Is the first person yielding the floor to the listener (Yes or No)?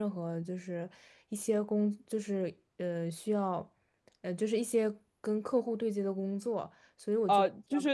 Yes